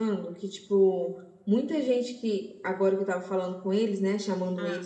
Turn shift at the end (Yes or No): No